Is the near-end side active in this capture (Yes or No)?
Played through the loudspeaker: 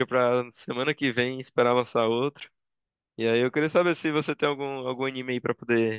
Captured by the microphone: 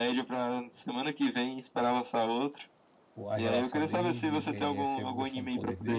Yes